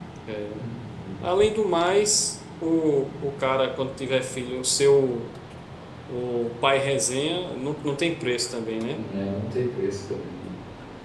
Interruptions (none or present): none